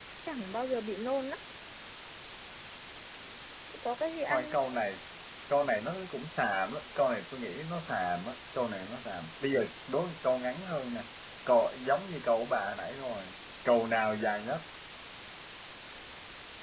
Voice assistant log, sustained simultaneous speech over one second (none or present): none